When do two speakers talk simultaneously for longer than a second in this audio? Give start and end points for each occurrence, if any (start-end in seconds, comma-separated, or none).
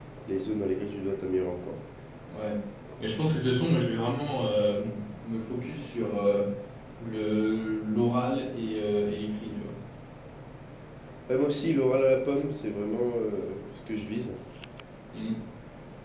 none